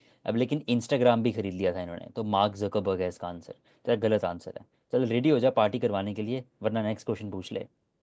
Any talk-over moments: No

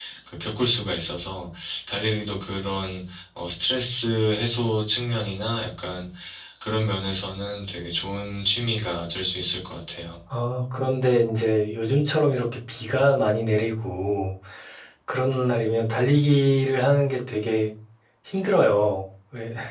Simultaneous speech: No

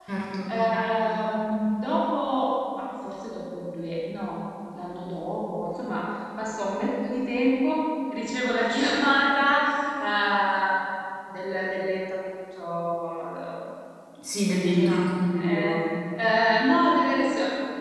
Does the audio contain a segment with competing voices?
Yes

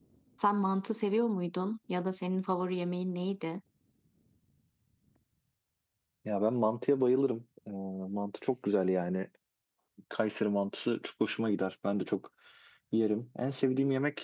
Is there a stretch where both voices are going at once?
No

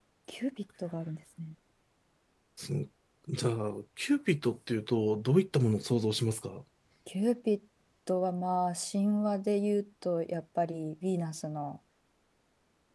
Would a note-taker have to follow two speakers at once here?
No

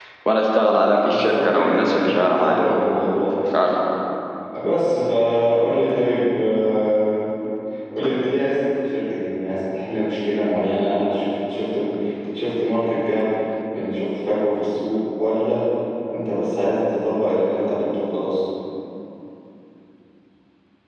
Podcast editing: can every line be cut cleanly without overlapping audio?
No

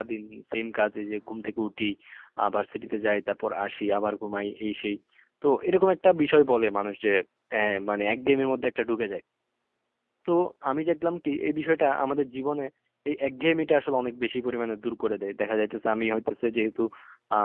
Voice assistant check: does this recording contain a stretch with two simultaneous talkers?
No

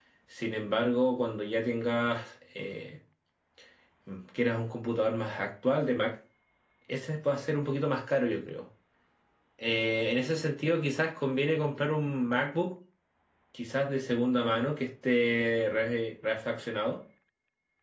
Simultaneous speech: No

